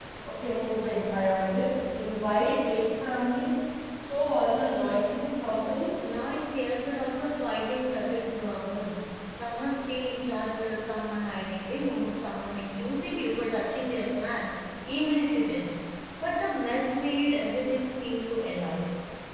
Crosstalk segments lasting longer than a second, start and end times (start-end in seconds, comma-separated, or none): none